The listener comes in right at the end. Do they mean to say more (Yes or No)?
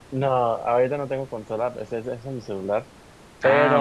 No